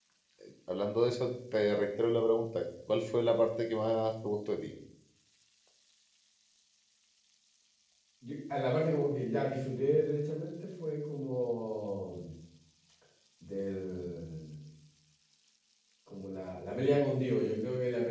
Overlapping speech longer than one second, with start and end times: none

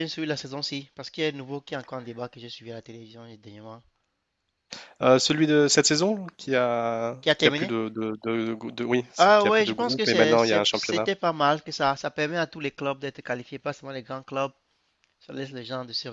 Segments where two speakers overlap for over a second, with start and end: 9.2-11.0

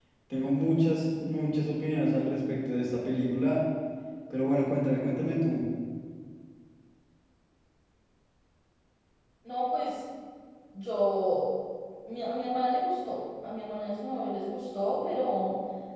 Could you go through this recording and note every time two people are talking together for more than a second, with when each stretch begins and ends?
none

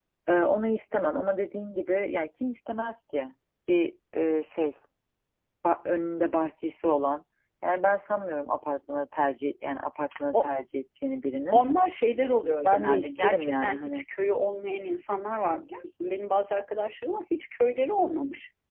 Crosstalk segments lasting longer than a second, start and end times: 12.6-14.0

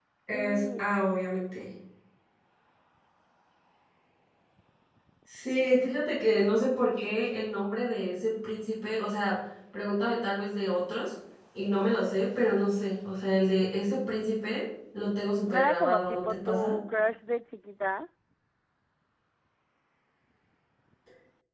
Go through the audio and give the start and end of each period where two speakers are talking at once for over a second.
15.4-16.7

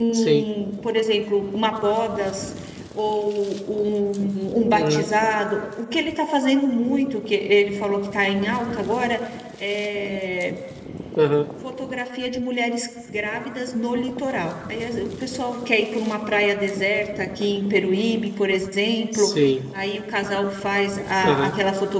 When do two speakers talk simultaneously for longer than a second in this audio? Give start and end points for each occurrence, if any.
none

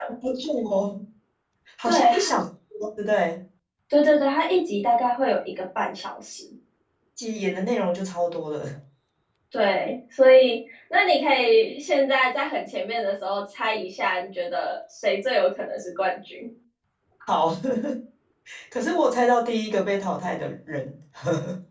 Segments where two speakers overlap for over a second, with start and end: none

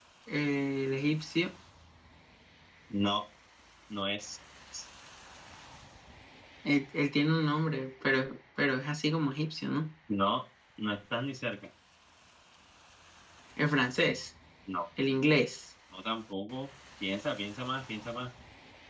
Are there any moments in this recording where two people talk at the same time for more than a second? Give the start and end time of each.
none

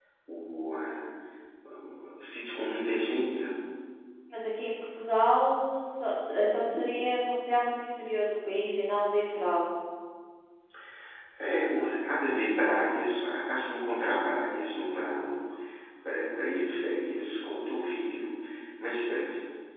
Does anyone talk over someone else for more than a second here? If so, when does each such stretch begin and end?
none

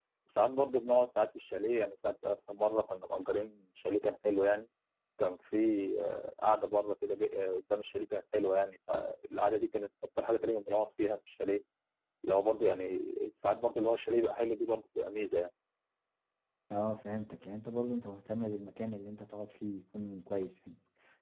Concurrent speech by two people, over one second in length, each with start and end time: none

